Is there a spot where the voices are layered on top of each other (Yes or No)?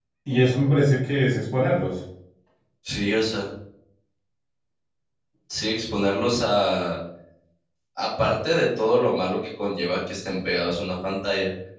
No